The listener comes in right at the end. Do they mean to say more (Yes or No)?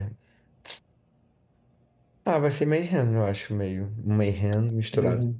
No